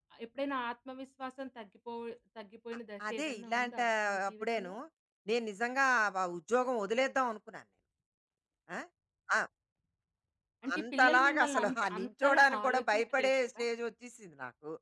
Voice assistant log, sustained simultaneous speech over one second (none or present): present